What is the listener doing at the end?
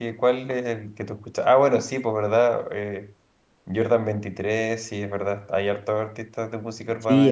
taking over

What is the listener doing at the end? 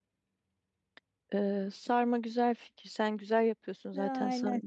listening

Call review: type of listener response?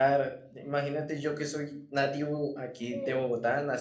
listening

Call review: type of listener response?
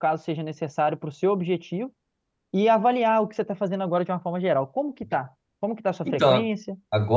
taking over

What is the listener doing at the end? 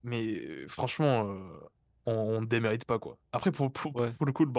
listening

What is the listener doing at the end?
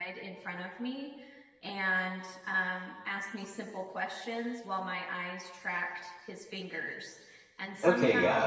taking over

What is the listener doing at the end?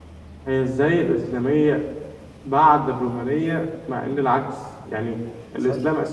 listening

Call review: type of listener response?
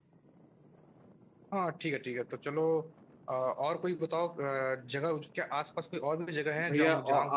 taking over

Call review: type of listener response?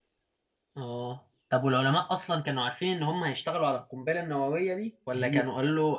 listening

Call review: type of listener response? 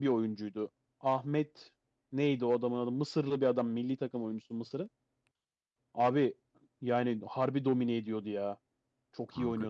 taking over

